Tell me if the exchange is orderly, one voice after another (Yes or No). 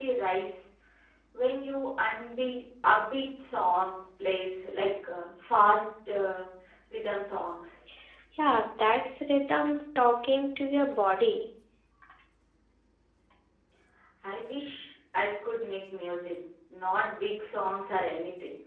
Yes